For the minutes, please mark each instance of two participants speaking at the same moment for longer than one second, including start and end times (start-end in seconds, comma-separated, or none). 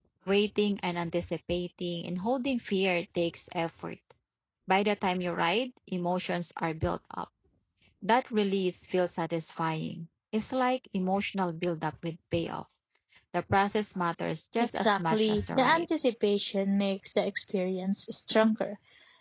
14.6-15.8